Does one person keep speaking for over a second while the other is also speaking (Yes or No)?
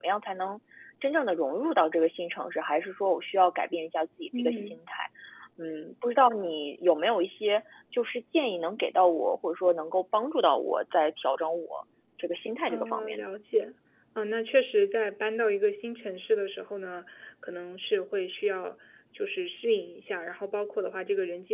No